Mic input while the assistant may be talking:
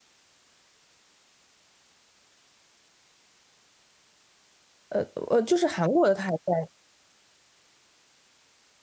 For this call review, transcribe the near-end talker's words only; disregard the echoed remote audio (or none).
呃呃，就是韩国的他还在，